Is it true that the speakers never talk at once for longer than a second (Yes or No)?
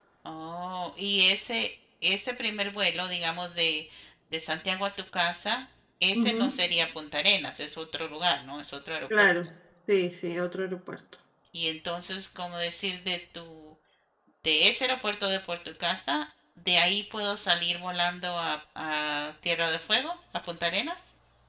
Yes